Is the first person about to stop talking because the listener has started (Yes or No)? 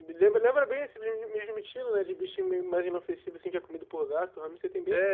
Yes